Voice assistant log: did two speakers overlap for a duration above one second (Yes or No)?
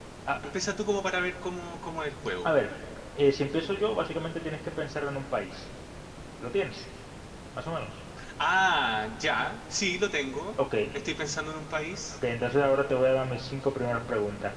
No